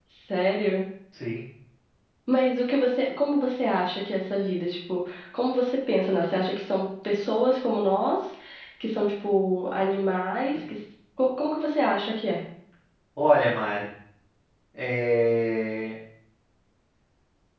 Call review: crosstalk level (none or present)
none